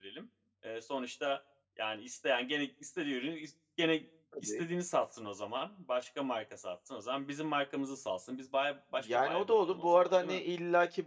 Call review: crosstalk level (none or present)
present